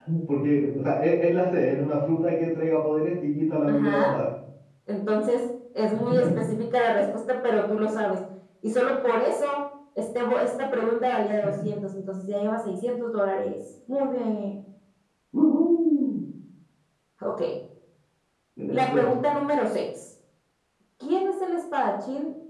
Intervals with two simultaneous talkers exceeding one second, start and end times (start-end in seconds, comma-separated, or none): none